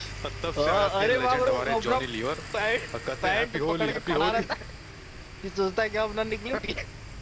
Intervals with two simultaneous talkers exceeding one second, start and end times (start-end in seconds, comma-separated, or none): 0.6-2.0, 3.2-4.4